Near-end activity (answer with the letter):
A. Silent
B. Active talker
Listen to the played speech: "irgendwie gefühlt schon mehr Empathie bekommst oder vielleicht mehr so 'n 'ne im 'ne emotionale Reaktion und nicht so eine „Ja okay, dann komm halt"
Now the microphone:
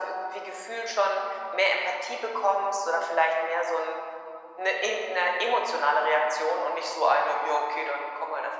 A